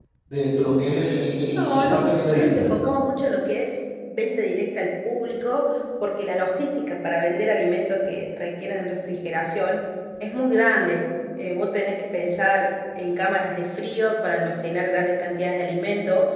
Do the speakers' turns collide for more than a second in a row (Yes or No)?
Yes